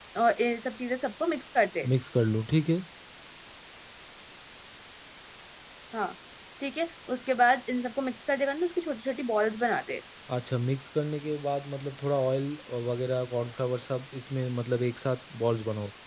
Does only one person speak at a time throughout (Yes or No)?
Yes